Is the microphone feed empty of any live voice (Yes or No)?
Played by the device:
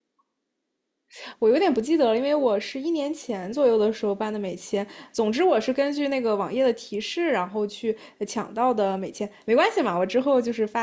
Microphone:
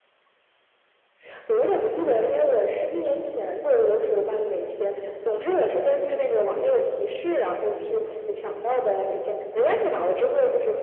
Yes